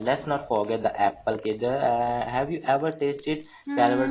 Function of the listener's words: taking over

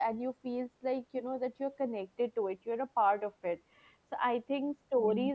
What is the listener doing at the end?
listening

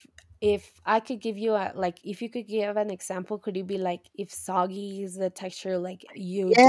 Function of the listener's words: taking over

